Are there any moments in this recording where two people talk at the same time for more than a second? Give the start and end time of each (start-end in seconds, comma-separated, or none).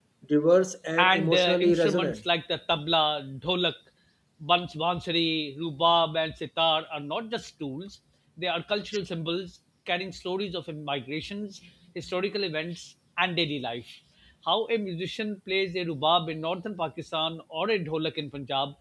1.0-2.2